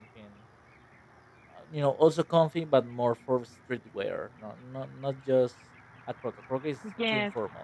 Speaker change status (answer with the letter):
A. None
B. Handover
B